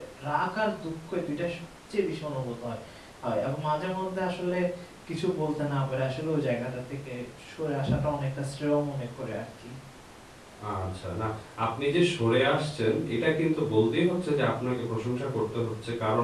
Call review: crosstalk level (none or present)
none